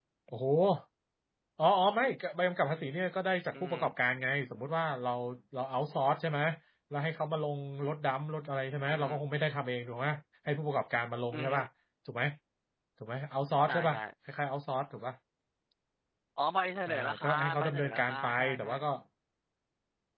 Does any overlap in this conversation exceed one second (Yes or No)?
Yes